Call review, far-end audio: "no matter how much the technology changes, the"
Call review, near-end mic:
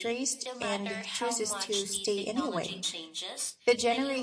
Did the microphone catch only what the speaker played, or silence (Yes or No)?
No